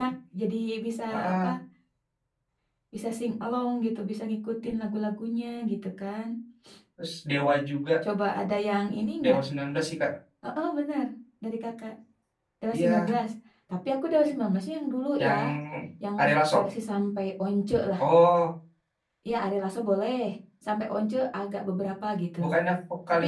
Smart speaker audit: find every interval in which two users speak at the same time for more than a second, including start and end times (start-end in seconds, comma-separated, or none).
none